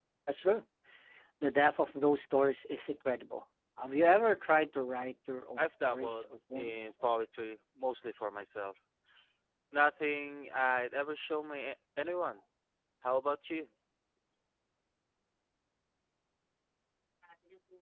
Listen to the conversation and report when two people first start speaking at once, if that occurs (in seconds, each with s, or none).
5.6 s